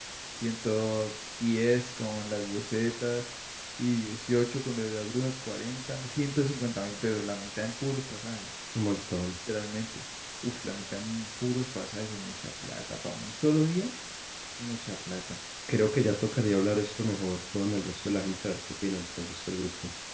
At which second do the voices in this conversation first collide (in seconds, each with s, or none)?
none